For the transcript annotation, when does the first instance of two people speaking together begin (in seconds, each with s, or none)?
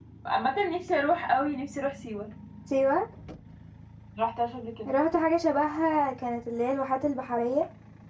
none